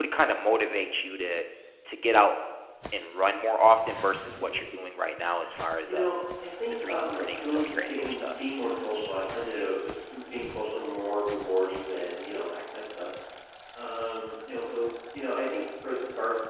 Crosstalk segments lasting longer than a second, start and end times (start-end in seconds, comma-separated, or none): 6.7-8.2